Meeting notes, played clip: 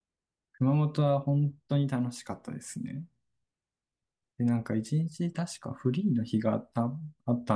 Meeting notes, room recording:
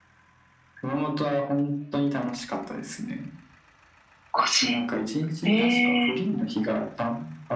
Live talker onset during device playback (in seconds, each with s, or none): 4.4 s